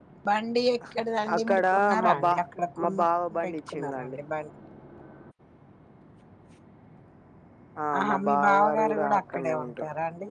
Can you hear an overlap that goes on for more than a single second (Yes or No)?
Yes